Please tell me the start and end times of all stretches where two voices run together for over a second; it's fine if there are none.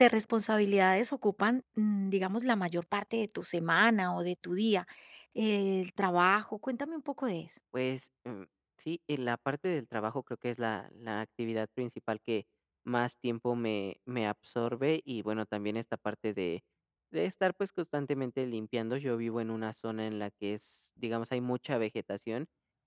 none

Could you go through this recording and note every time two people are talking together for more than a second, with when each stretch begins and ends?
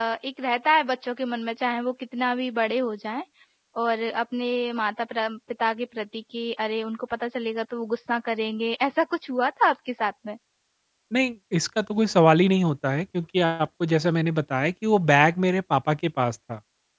none

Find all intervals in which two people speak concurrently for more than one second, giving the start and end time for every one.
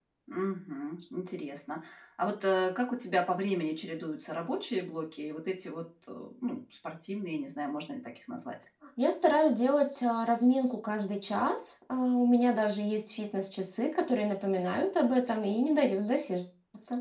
none

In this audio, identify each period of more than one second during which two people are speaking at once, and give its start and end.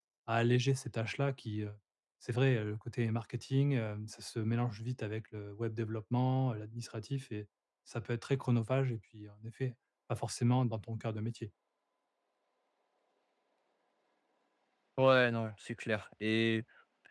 none

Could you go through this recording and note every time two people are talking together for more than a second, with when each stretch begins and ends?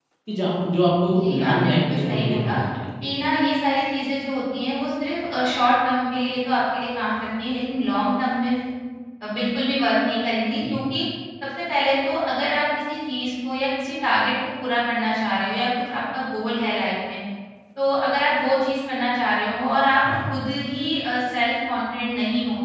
1.1-2.5

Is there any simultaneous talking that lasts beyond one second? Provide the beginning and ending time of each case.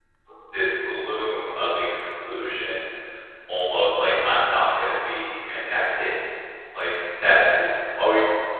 0.5-1.8

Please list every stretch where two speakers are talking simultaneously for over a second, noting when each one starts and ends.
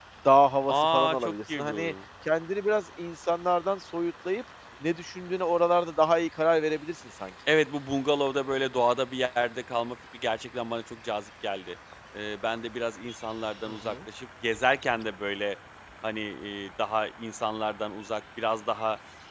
0.7-1.9

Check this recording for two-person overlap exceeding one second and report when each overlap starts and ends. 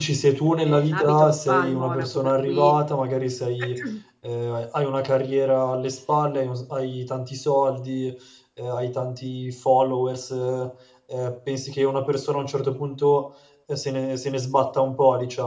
0.6-2.8

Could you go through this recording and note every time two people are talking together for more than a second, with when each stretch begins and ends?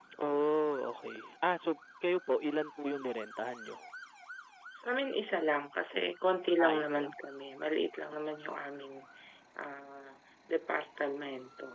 none

